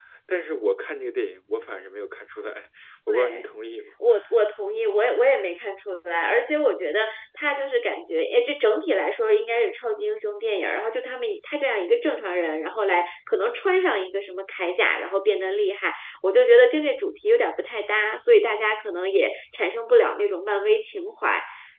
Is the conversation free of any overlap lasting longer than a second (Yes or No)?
Yes